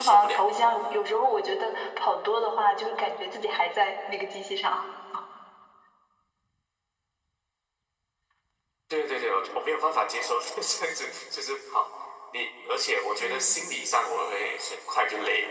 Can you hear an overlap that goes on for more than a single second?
No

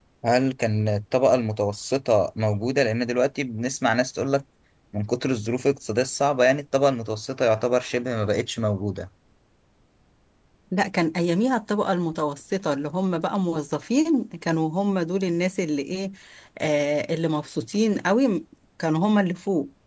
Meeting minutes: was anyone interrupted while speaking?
No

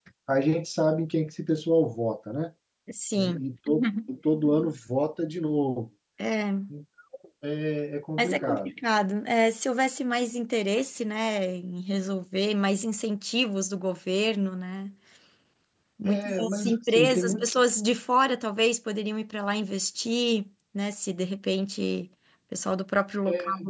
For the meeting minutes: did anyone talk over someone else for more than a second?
Yes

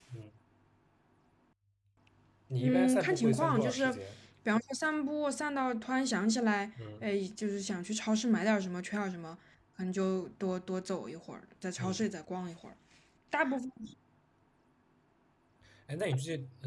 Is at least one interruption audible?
Yes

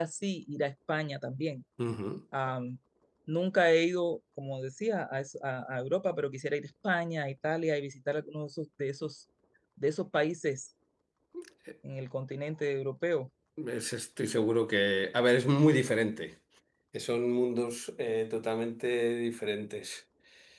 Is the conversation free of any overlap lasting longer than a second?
Yes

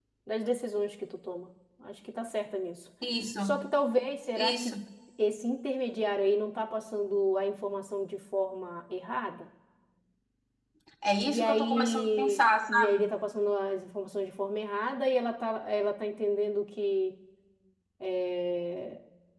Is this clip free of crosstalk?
No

